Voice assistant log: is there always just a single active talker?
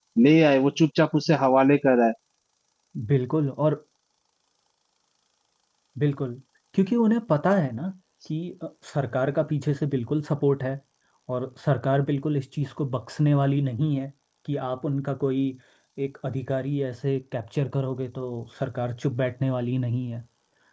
Yes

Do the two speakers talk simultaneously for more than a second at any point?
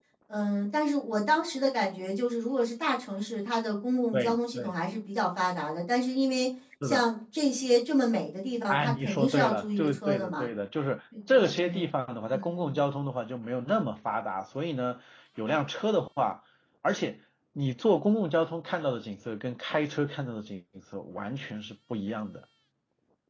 Yes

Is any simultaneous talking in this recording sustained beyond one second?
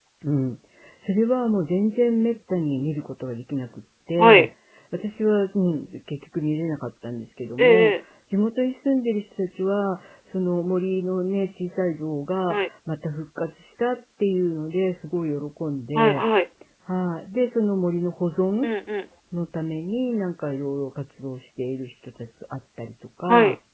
No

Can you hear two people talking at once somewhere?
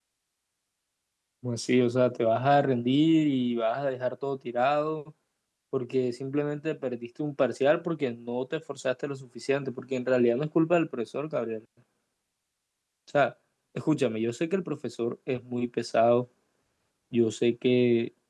No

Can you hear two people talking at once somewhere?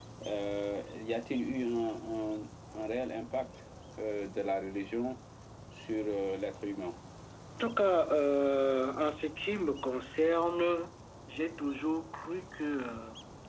No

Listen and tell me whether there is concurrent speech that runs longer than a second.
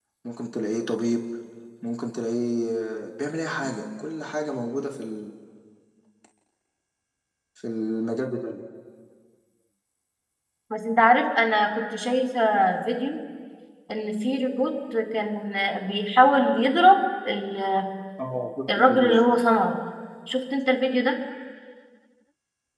No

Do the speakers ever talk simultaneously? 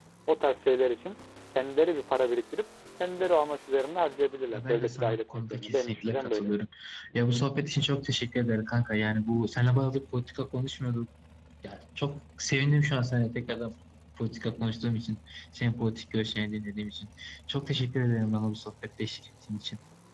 Yes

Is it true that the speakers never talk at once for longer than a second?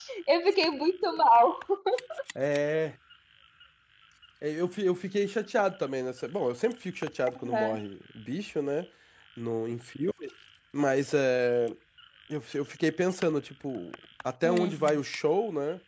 Yes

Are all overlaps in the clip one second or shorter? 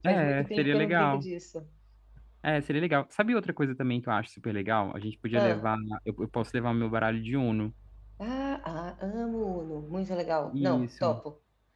No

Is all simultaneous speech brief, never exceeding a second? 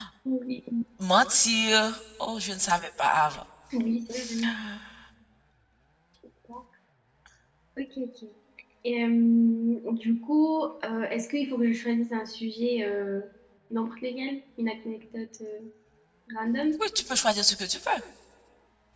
Yes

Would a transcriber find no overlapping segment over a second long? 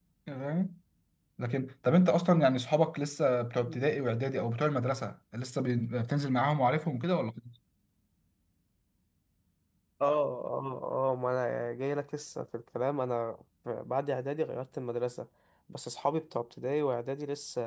Yes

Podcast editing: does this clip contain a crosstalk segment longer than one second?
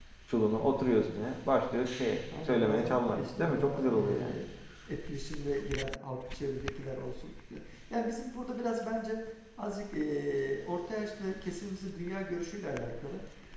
Yes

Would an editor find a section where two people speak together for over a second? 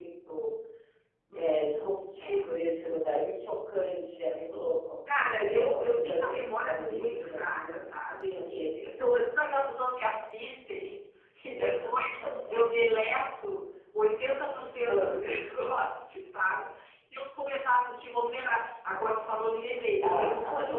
Yes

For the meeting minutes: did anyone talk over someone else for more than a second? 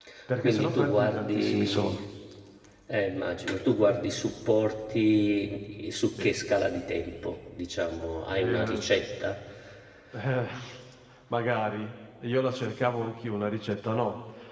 Yes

